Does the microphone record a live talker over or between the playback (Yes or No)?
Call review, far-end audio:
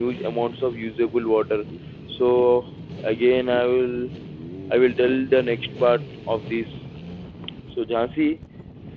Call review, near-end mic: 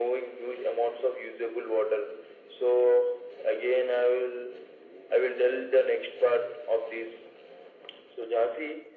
No